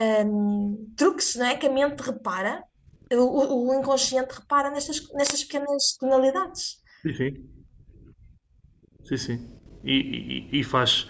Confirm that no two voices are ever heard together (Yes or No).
Yes